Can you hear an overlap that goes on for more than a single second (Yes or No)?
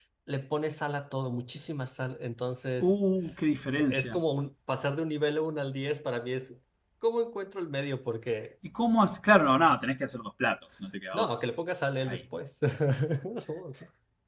No